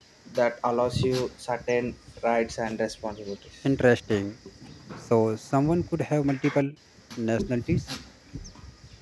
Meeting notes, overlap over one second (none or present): none